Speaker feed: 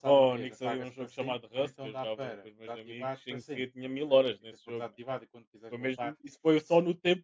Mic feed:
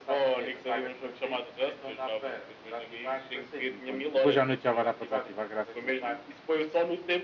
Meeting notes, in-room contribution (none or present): present